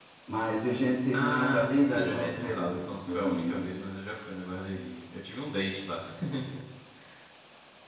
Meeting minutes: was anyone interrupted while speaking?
Yes, from 1.1 s

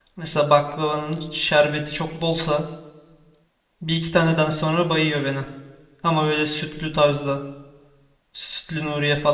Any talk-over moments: No

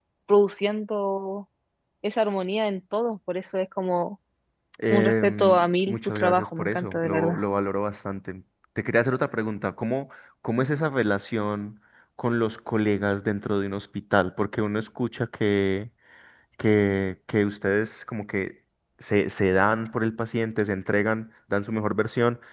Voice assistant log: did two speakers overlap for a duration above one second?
Yes, from 4.9 s

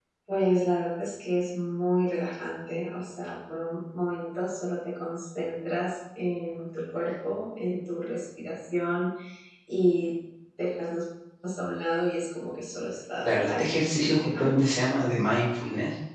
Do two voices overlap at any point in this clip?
Yes, from 13.2 s

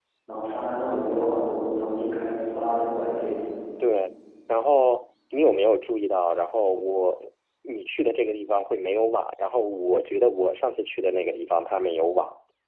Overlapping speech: No

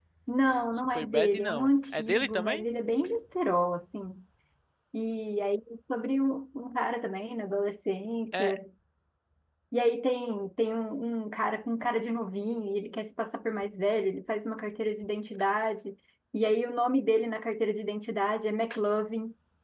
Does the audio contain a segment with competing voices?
Yes, from 0.8 s

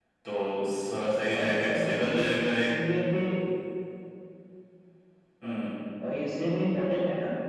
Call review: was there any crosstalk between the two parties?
Yes, from 1.3 s

